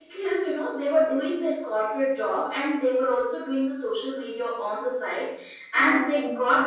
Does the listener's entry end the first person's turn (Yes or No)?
No